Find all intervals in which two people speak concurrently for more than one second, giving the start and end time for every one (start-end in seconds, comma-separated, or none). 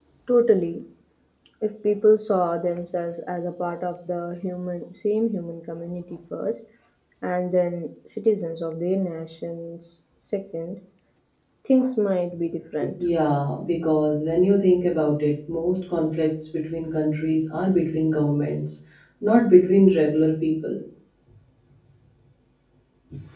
none